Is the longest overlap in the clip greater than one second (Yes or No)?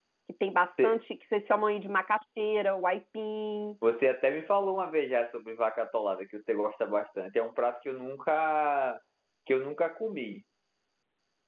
No